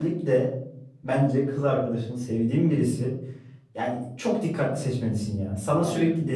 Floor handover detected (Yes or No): No